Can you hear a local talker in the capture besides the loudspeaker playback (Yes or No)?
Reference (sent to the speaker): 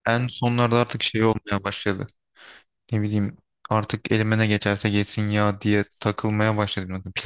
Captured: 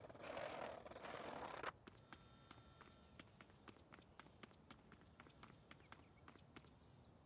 No